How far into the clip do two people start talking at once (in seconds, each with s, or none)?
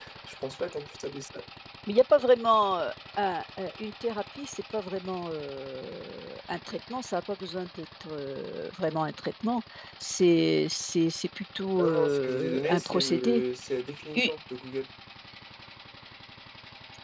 11.8 s